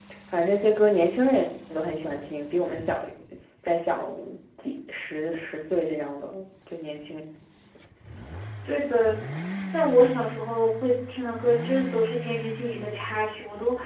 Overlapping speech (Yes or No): No